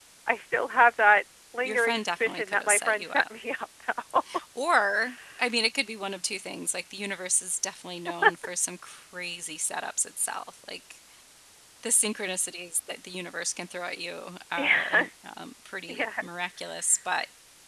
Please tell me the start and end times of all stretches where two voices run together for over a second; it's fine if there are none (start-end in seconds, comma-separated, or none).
1.6-3.2